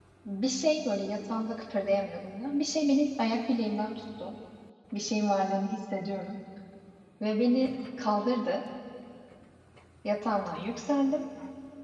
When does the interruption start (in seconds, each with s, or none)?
none